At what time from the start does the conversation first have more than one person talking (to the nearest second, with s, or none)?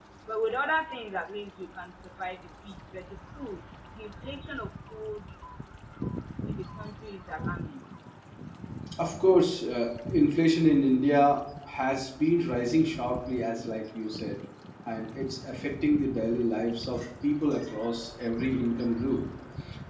none